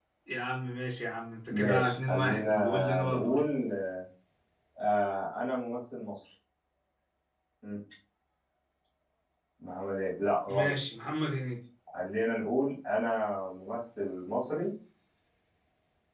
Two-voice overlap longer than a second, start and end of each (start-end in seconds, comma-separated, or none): 1.5-3.4